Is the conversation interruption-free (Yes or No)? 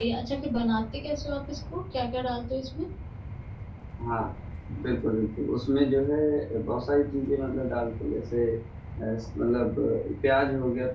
Yes